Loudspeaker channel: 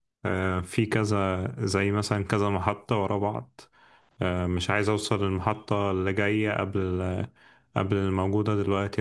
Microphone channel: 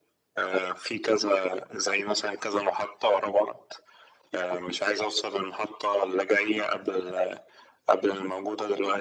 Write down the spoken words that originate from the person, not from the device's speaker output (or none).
none